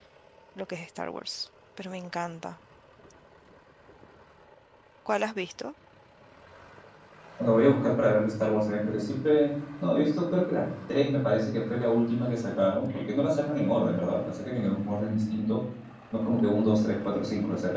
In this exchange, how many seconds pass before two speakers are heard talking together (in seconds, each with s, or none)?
none